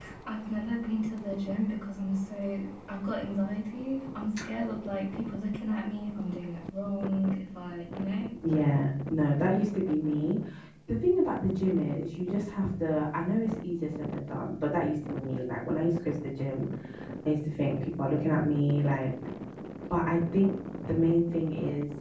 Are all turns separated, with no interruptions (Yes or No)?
Yes